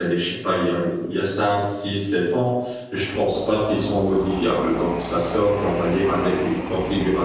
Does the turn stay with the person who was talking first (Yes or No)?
Yes